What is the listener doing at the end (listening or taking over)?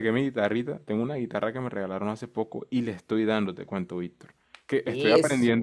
listening